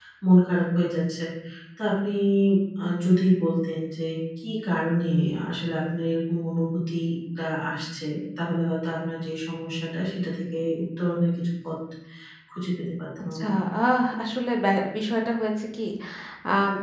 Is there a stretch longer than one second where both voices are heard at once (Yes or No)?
No